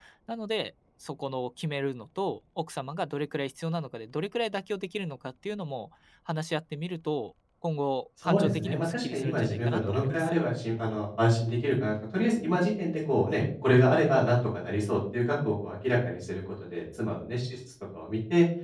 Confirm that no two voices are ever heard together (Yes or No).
No